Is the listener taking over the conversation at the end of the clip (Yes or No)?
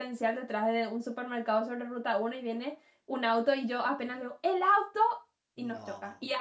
No